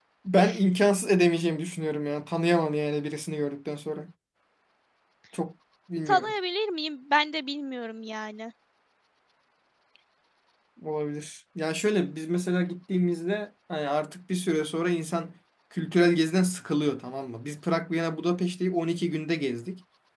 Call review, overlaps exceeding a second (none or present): none